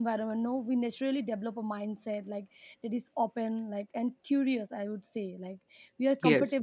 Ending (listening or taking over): listening